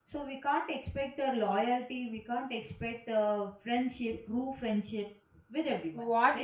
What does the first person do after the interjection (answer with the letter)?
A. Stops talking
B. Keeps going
A